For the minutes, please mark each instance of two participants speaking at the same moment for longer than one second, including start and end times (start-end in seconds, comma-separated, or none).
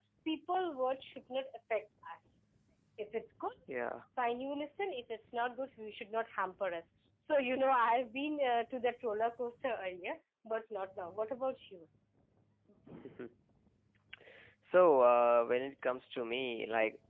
none